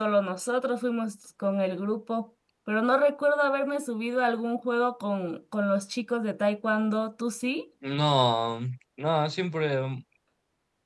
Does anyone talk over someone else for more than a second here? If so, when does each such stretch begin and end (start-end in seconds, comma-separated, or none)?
none